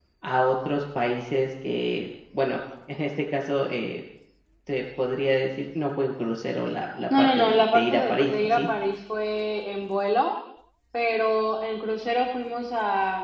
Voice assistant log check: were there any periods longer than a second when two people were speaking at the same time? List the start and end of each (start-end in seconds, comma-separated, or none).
7.2-8.7